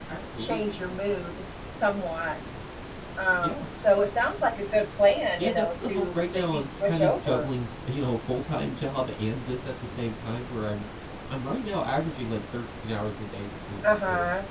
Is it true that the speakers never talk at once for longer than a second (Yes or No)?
No